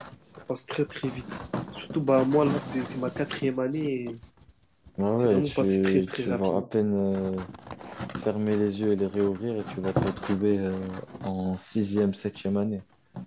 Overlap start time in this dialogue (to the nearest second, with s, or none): 5 s